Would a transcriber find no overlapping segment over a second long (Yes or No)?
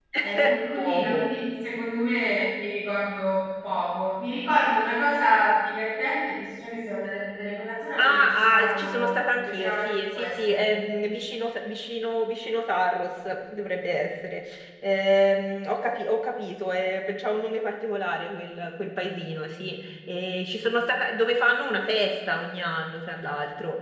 No